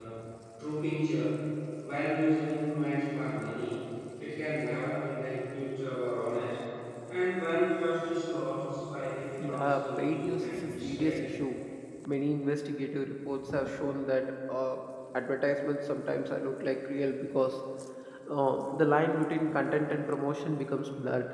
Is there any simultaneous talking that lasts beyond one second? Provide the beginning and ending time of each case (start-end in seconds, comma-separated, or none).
9.4-11.3